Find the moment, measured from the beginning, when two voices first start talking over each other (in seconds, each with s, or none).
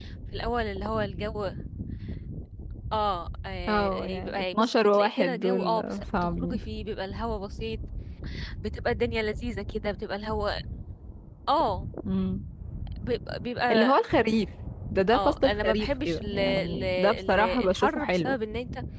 3.7 s